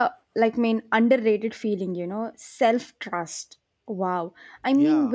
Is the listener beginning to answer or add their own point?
No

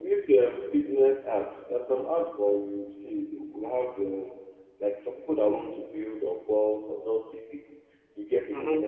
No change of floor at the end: Yes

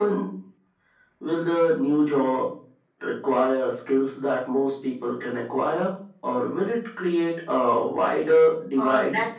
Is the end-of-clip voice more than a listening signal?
Yes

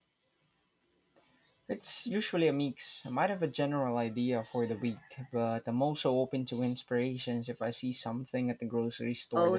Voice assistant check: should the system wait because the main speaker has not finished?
No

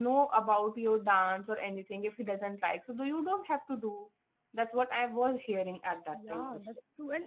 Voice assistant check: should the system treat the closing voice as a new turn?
Yes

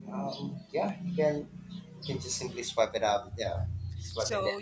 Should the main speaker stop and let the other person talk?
Yes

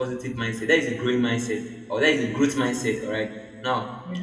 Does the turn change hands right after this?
No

